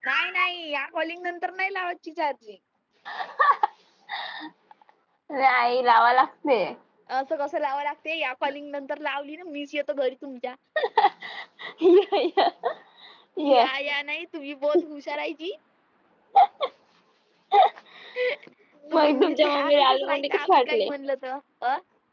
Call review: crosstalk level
present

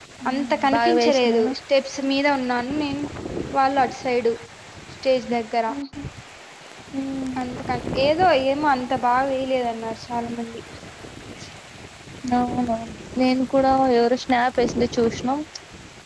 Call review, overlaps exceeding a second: present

